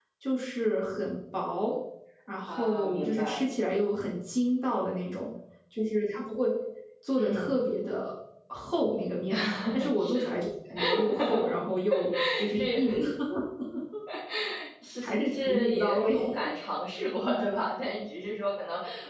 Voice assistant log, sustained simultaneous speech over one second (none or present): present